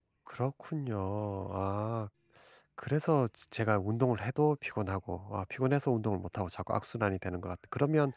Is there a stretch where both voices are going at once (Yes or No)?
No